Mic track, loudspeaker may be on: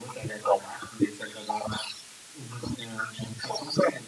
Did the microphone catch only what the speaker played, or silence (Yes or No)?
Yes